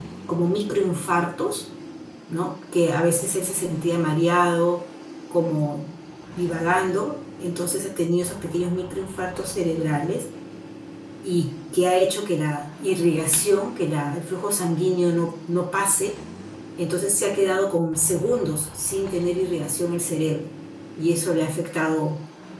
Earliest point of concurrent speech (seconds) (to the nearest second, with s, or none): none